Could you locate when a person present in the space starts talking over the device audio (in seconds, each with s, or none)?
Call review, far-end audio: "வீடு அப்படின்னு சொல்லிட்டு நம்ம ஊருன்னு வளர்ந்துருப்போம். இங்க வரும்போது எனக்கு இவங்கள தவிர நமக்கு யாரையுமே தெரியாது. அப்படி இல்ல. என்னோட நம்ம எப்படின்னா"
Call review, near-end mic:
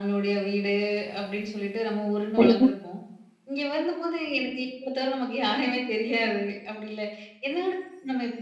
2.4 s